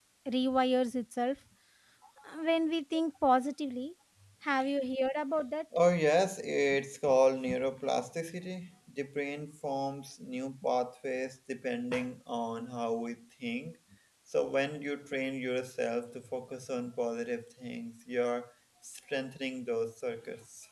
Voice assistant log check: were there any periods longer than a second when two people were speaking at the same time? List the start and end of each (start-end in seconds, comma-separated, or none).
none